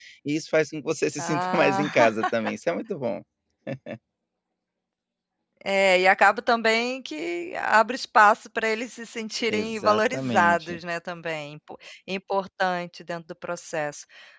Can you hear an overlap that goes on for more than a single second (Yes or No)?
Yes